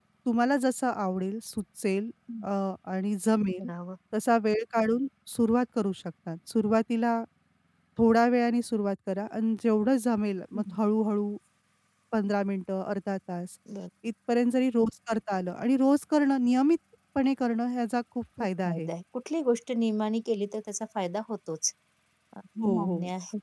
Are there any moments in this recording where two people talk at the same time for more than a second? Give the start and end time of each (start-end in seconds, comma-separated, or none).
none